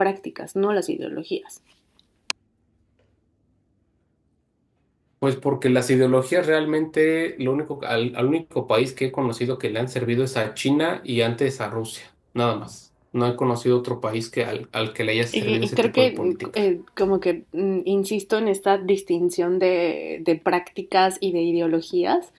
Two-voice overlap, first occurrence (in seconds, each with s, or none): 15.3 s